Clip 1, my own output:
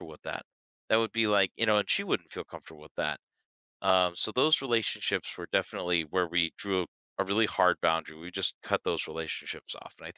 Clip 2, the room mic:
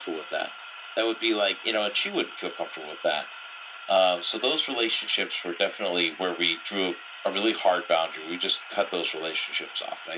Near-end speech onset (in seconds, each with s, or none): none